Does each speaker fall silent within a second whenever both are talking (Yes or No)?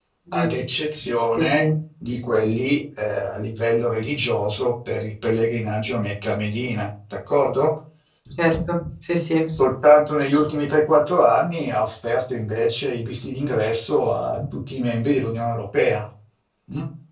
Yes